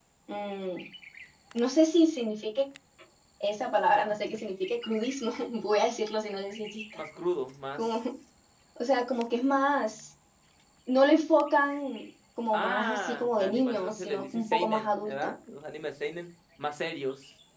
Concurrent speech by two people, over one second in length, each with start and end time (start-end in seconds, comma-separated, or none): 12.5-15.3